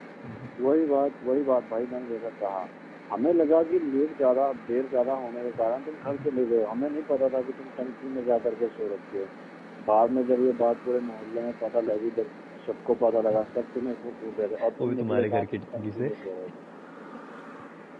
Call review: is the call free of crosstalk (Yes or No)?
No